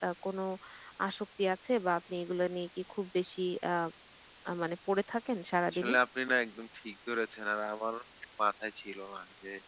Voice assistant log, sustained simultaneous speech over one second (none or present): none